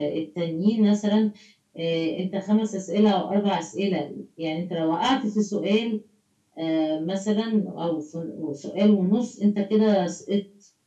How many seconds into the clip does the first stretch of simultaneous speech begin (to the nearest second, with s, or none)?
none